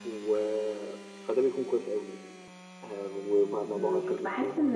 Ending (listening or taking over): taking over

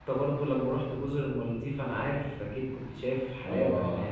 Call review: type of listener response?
taking over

